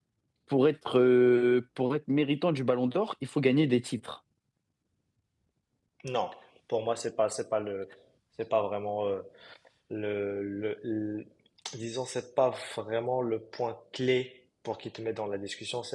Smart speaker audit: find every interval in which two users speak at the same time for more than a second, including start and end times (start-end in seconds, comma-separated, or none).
none